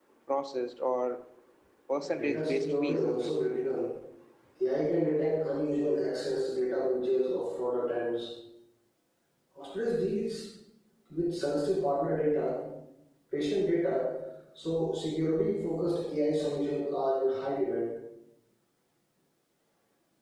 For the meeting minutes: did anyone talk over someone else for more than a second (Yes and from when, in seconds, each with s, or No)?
Yes, from 2.0 s